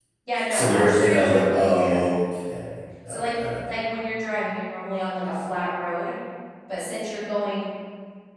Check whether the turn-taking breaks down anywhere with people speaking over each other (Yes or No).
Yes